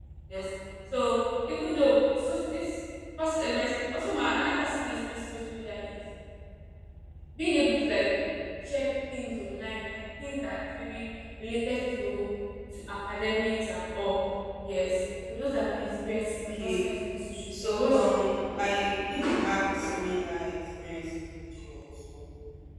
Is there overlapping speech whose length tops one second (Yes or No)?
Yes